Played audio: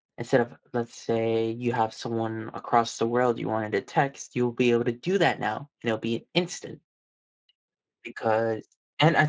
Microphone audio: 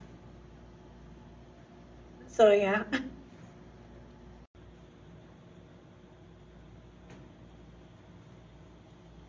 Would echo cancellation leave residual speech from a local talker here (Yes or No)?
Yes